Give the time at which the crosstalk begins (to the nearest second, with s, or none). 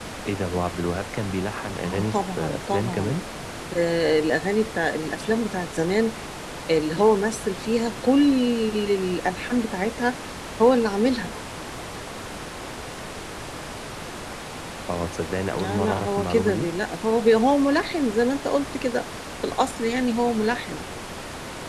2 s